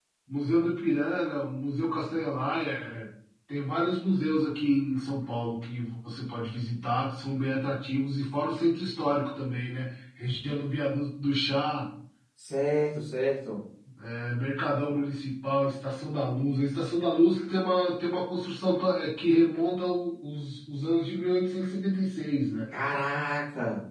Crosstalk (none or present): none